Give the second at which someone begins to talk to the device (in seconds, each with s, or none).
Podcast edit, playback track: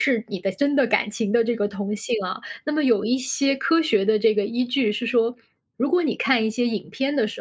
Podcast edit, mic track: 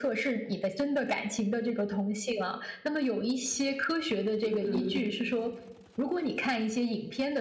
4.4 s